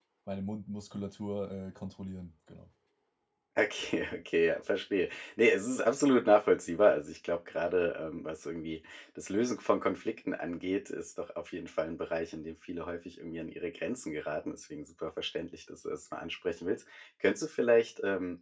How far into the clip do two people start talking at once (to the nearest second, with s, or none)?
none